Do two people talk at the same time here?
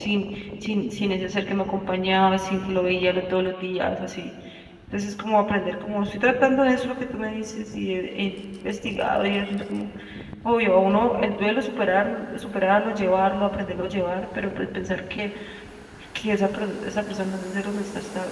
No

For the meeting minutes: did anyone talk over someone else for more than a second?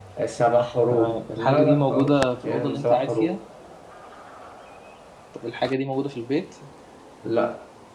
Yes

